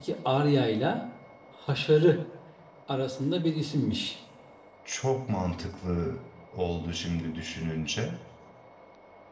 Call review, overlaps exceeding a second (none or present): none